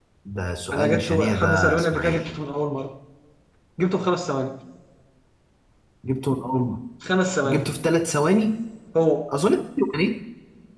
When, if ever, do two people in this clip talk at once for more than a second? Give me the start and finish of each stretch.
0.7-2.2

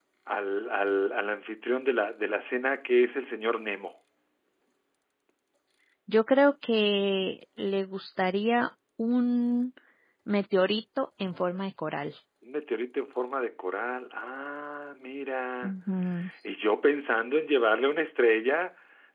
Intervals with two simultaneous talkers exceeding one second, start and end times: none

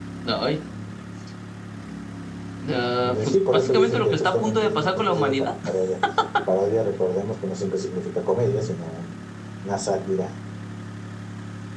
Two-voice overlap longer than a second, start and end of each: 3.0-5.4

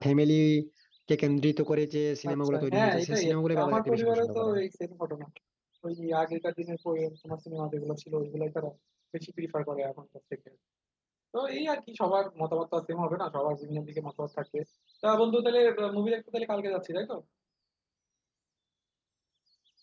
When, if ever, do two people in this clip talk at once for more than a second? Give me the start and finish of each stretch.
2.3-4.5

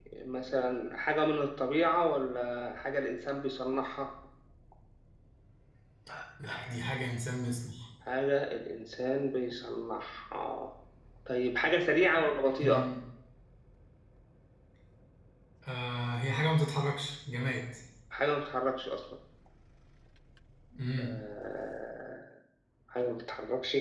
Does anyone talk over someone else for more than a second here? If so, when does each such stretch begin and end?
none

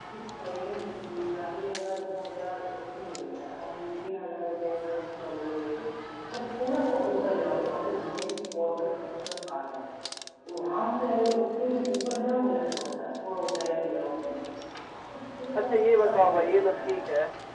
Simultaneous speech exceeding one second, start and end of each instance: 15.6-16.9

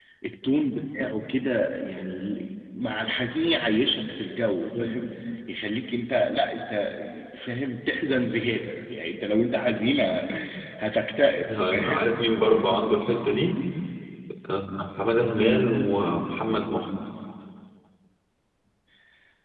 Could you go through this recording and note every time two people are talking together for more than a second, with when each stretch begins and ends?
none

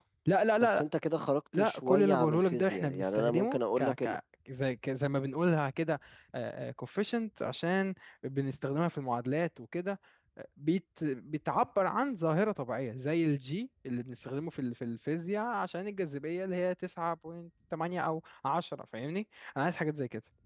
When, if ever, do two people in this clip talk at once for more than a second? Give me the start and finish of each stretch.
1.5-4.2

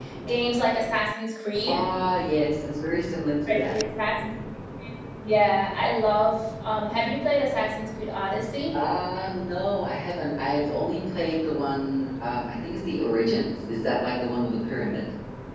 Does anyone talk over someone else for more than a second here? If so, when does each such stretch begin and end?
none

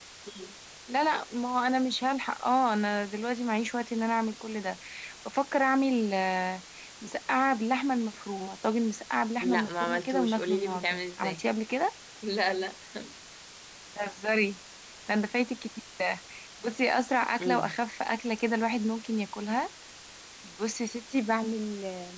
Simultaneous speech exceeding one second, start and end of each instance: 9.4-11.4

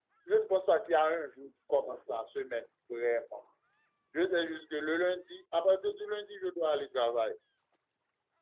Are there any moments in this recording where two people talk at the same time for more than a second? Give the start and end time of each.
none

